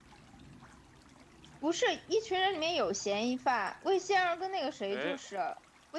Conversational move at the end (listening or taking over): listening